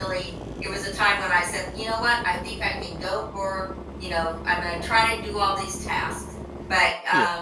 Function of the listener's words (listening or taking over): listening